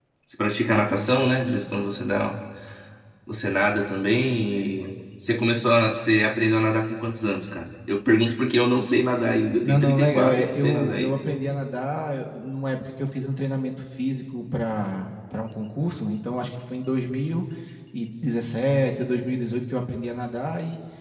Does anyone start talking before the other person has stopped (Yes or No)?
Yes